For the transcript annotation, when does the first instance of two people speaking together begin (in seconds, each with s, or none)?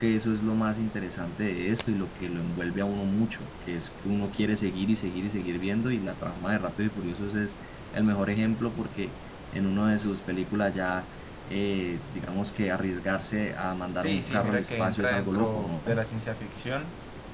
14.0 s